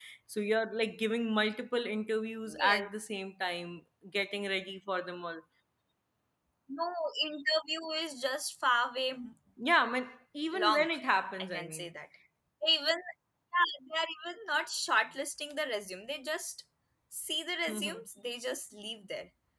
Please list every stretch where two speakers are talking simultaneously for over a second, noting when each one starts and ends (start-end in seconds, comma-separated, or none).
none